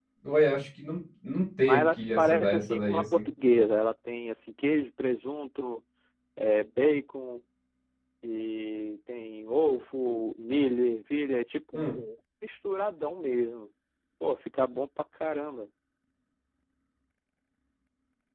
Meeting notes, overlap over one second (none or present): present